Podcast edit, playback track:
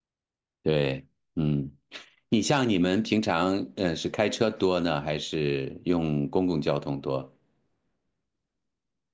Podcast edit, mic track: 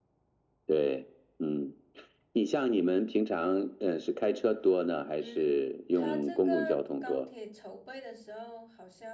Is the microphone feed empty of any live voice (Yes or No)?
No